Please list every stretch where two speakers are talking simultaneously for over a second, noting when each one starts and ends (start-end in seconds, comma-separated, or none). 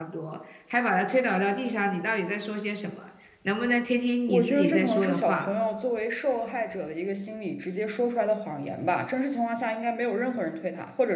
4.3-5.5